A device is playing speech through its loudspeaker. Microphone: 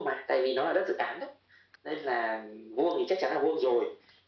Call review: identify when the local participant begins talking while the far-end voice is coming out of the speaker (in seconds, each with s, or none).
none